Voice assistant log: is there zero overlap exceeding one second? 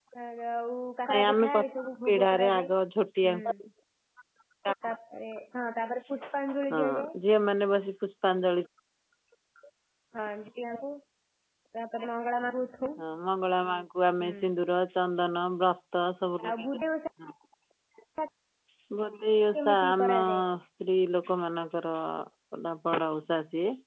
No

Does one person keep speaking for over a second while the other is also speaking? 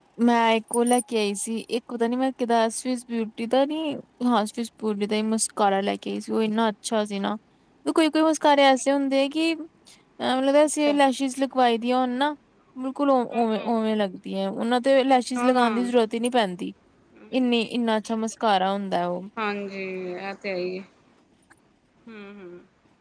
No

